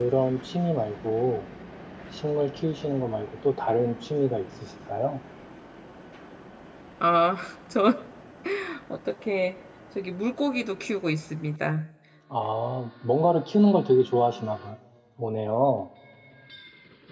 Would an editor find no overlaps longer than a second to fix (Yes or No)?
Yes